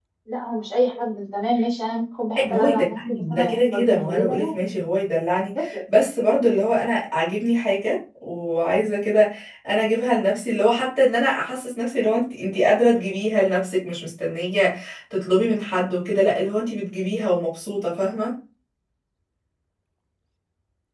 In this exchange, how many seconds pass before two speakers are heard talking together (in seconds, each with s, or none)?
2.4 s